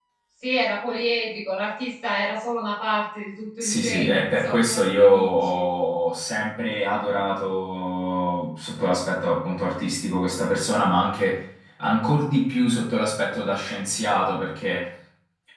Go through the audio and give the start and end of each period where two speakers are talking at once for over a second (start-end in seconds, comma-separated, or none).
3.6-5.7